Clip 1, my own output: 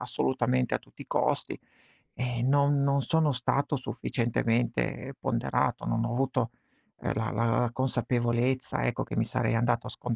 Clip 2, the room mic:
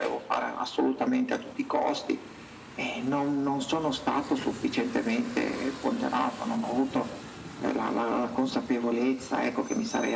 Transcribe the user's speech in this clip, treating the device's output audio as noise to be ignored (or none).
none